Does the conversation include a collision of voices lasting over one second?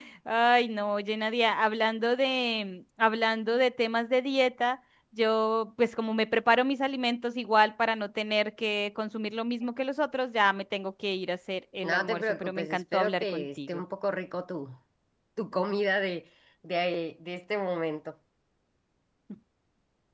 Yes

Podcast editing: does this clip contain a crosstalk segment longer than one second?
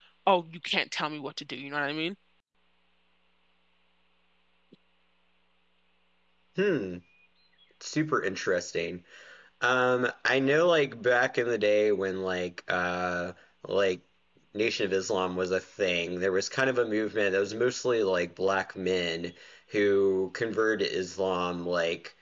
No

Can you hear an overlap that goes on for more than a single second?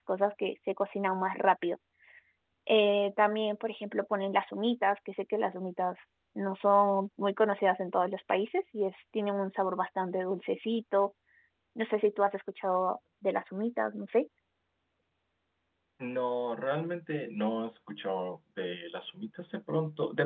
No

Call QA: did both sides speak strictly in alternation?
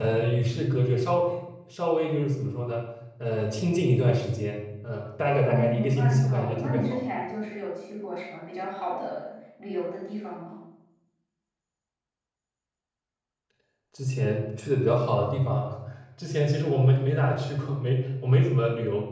No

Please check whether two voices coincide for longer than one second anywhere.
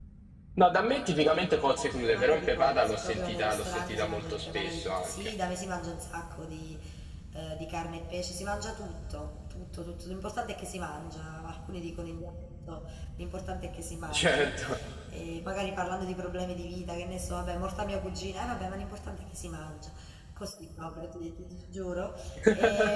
Yes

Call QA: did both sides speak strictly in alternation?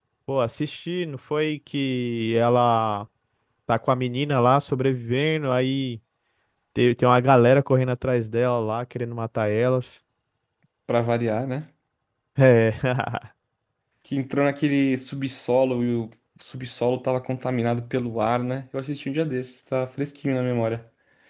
Yes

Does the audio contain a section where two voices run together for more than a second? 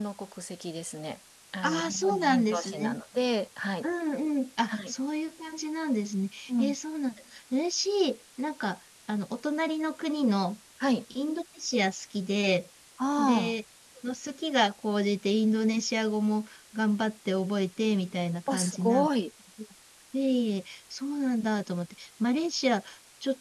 Yes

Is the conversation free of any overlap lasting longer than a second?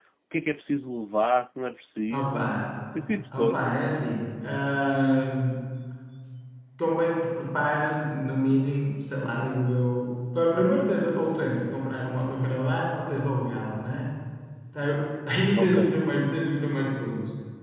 Yes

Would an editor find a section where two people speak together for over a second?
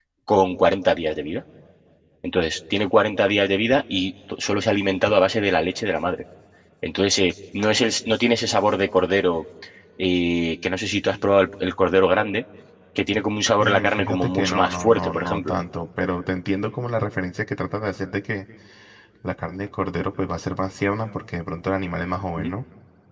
Yes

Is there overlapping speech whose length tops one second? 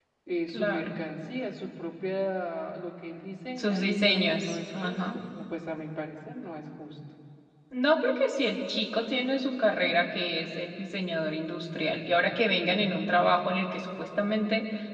Yes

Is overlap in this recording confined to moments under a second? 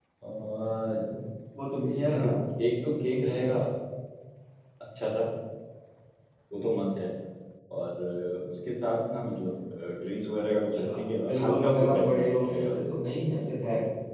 No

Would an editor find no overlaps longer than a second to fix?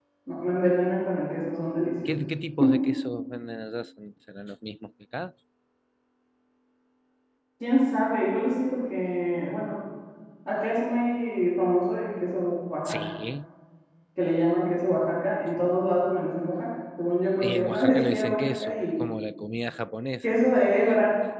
No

